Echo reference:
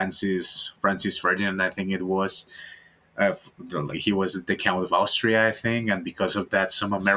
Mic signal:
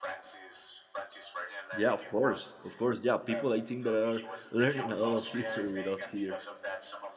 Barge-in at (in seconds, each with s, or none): 1.7 s